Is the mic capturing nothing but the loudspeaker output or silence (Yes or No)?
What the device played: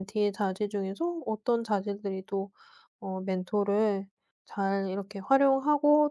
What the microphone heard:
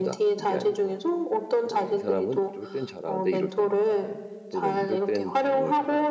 No